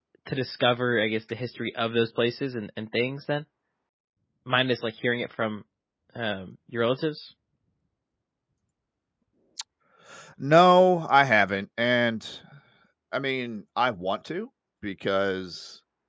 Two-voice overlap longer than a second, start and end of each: none

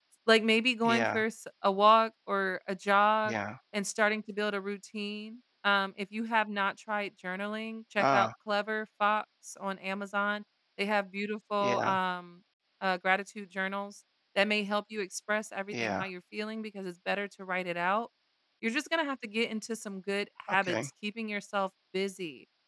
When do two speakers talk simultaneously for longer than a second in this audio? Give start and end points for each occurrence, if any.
none

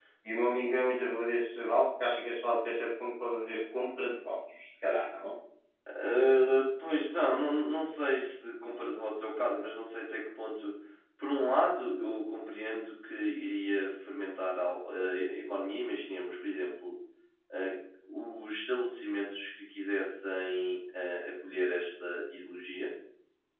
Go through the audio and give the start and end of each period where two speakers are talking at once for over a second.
none

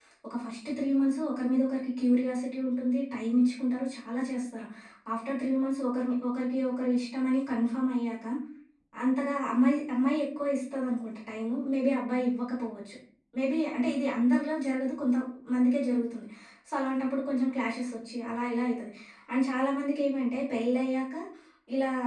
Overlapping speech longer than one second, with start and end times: none

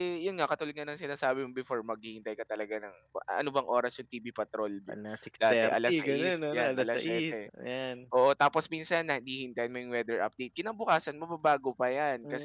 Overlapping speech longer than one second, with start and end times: 5.5-7.5

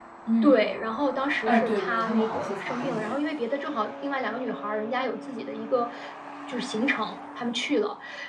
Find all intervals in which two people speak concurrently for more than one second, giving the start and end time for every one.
1.4-3.1

